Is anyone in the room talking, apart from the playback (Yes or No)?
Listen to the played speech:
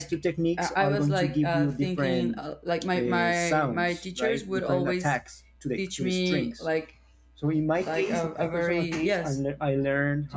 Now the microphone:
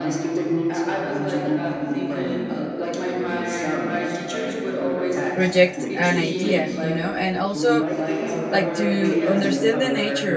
Yes